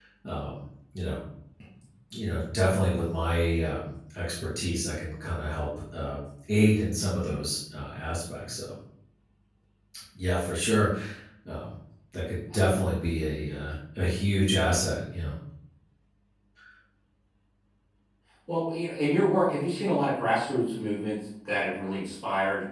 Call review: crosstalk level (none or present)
none